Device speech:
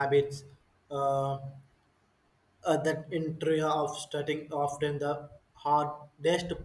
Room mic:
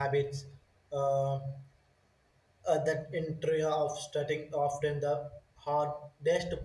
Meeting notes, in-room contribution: none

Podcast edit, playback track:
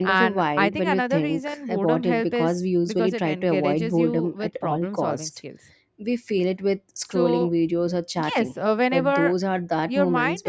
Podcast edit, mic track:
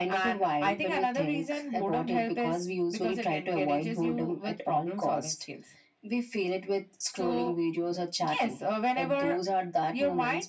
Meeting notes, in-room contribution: none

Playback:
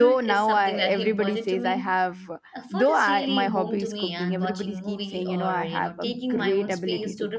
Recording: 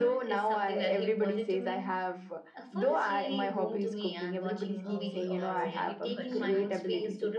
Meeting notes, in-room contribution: present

